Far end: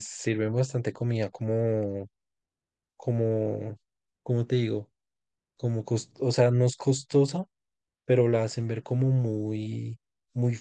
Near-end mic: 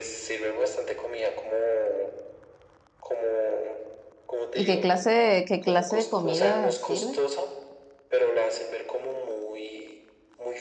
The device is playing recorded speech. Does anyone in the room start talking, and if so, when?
4.5 s

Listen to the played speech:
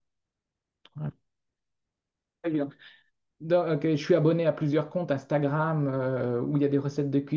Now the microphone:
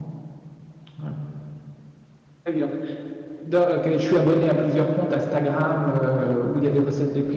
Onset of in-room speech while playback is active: none

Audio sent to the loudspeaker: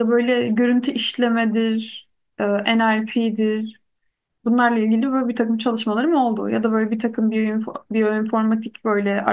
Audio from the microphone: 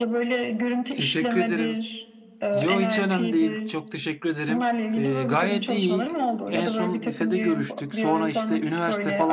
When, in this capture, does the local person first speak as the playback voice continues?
0.9 s

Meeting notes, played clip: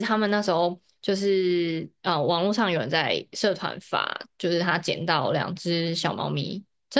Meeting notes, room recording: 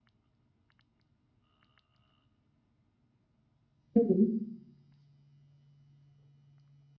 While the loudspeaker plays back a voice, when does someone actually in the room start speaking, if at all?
3.9 s

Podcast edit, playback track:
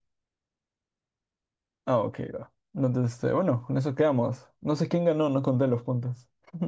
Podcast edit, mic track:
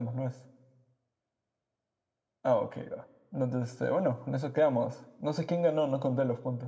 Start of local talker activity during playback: none

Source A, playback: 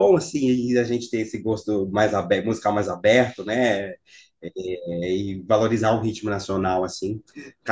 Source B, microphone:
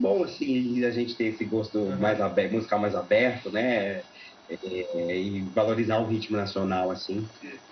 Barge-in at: 1.8 s

